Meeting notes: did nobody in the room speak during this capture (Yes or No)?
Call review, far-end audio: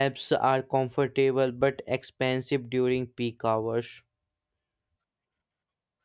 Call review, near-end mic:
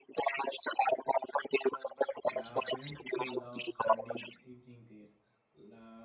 No